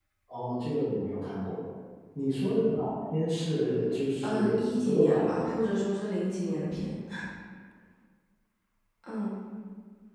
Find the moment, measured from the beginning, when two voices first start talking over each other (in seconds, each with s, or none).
4.2 s